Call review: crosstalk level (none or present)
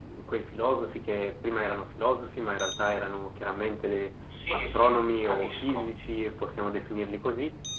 present